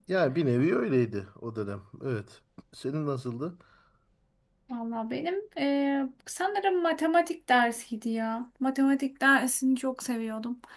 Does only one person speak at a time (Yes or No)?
Yes